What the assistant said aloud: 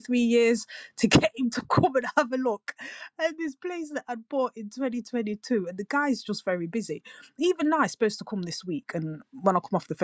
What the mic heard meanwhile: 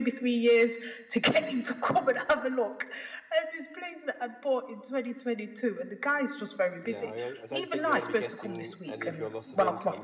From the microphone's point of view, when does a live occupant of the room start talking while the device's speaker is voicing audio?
6.8 s

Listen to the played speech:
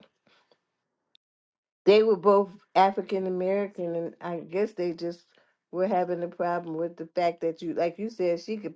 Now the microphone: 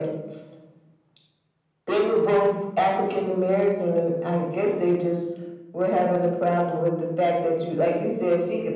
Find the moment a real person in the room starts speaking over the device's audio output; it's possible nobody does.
none

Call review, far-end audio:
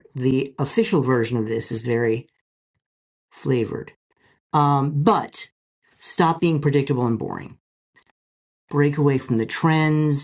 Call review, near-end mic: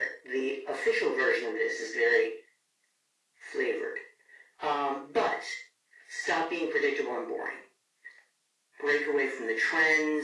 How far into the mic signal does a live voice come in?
none

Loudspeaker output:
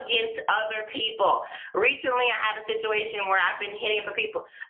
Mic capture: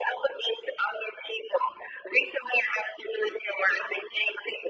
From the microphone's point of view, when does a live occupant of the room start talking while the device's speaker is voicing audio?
none

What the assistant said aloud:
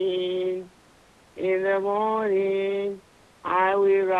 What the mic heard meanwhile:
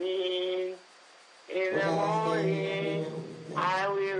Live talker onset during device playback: 1.7 s

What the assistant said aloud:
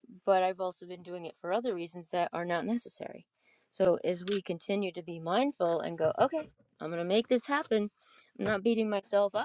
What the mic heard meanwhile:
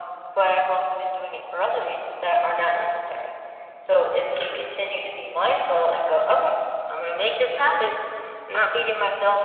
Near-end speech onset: none

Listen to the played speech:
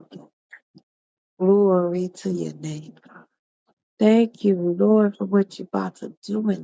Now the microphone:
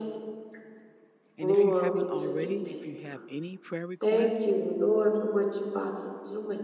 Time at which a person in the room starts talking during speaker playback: 1.4 s

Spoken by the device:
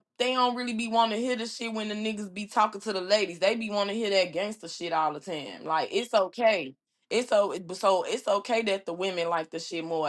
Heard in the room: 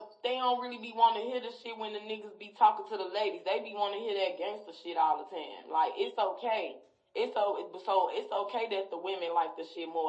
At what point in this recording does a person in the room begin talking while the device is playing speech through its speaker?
none

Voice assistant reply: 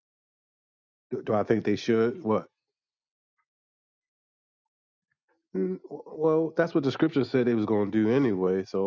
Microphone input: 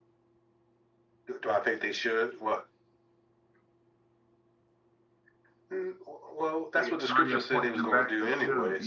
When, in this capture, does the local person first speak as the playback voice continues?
6.7 s

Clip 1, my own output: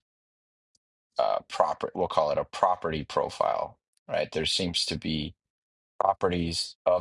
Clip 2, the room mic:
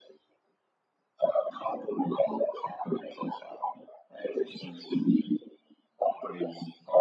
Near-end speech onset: none

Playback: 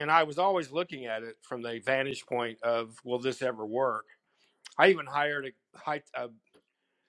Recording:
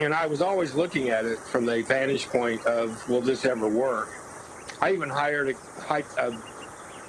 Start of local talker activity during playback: none

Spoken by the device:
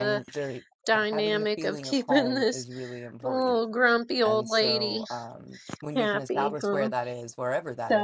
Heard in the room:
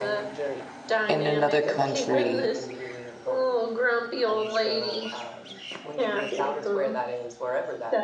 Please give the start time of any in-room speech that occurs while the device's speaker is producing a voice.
1.1 s

